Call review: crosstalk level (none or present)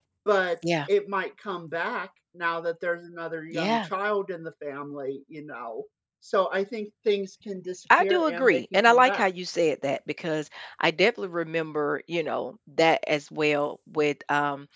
present